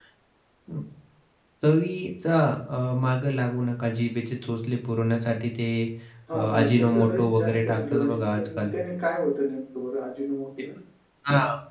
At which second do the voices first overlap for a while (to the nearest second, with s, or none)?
6 s